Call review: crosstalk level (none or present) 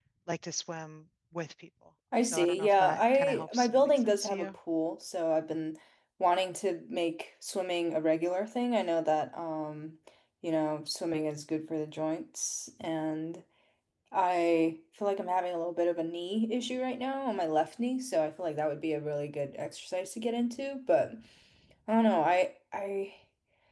present